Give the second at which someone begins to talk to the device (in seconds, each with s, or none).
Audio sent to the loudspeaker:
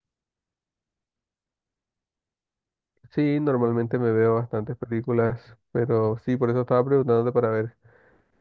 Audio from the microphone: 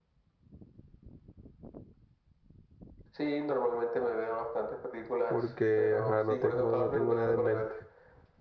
5.3 s